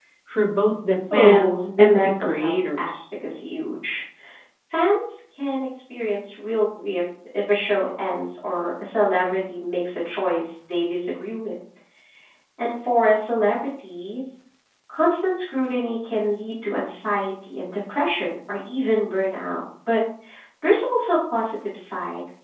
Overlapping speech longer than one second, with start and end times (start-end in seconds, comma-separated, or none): 1.1-3.0